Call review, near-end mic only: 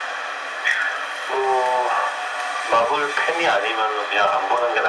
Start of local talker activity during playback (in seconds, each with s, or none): none